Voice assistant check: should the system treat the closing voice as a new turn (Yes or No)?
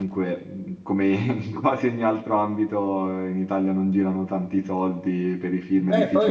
Yes